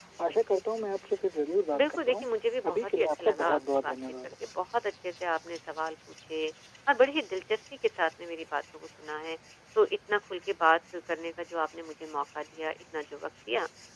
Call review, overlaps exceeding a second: present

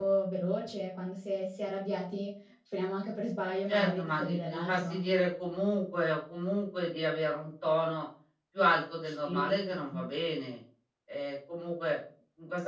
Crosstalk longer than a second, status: present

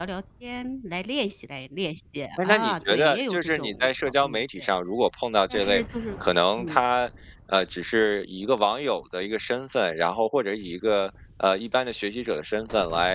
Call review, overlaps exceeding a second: present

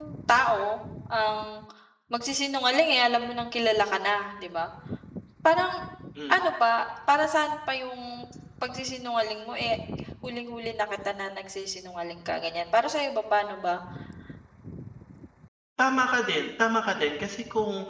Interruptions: none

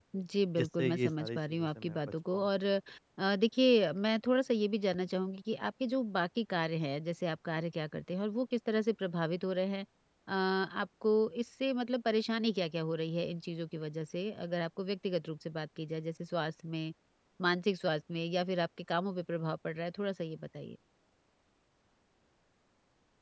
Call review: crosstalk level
present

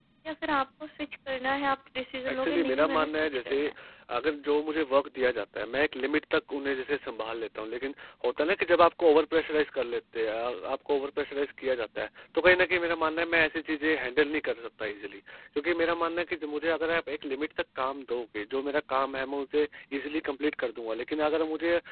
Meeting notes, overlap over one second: present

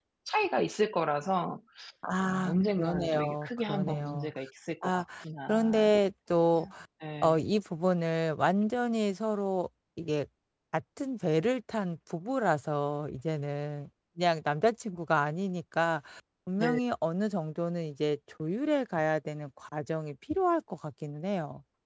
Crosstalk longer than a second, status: present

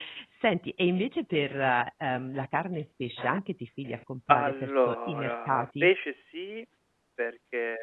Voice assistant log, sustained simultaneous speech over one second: present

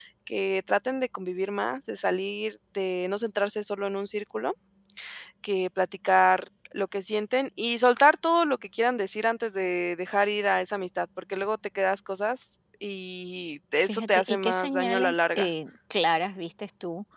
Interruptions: present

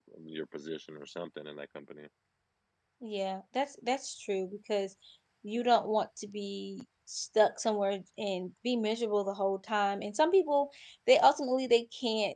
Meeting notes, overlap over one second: none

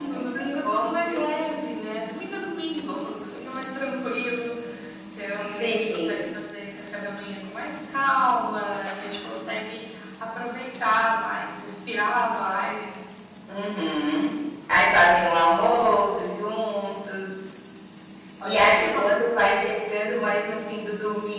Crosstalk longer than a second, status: present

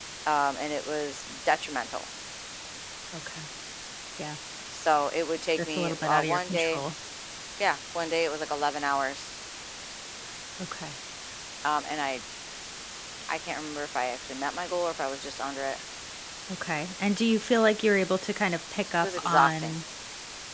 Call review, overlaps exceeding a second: present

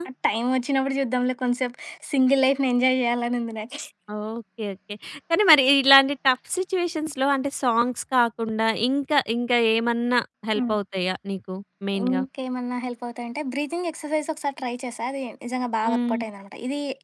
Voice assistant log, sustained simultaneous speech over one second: none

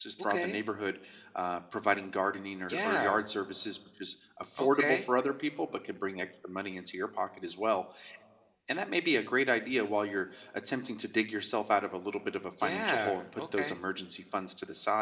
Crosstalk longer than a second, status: present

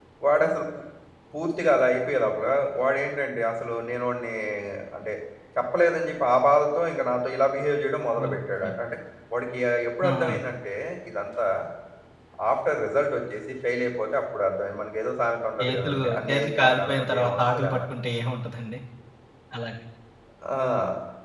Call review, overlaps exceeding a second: present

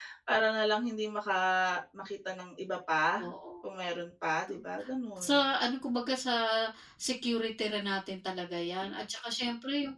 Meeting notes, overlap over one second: none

